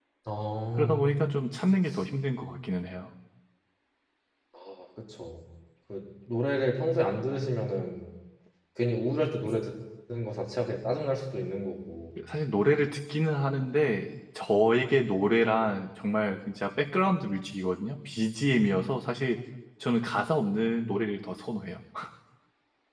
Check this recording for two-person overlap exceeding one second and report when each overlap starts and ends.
none

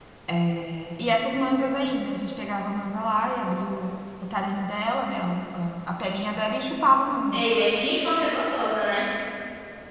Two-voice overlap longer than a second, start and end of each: none

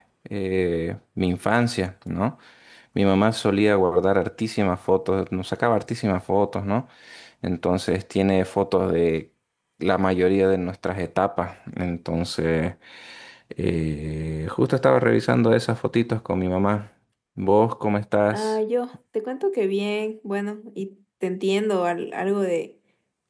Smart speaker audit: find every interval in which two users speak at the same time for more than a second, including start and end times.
none

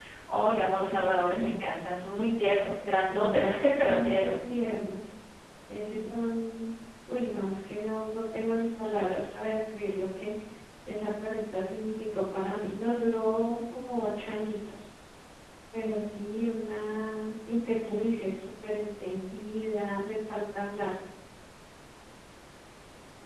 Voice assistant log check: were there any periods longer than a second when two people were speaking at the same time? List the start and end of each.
3.1-4.3

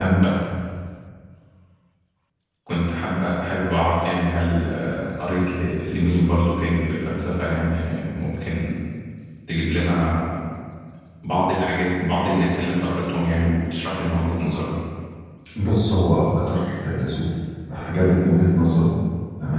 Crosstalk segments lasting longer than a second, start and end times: none

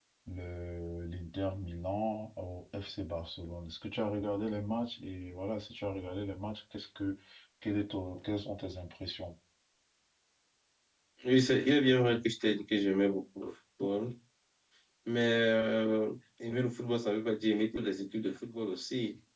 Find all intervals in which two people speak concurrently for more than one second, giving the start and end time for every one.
none

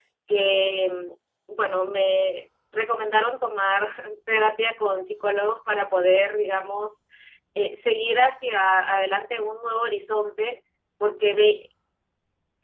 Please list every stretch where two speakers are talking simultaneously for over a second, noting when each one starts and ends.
none

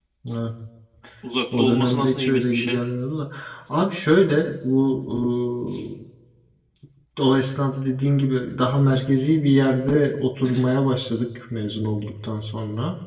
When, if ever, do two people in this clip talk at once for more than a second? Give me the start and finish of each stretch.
1.6-2.8

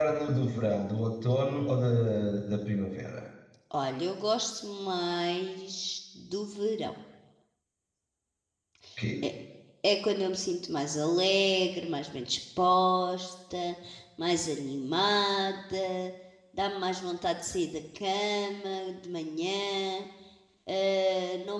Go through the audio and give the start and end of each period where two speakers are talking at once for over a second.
none

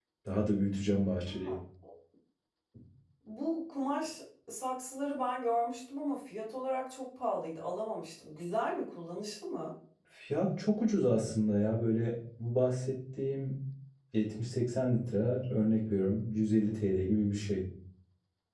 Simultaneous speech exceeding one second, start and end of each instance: none

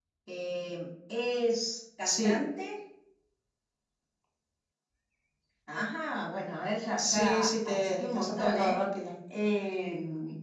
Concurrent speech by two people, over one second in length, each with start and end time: 7.0-8.8

